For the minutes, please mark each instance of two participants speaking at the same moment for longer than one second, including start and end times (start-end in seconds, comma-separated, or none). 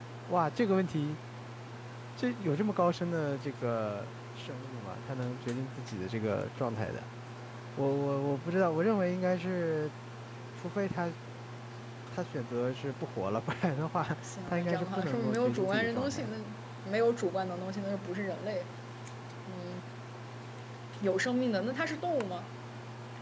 14.5-16.4